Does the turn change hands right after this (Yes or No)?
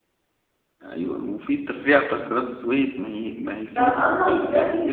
Yes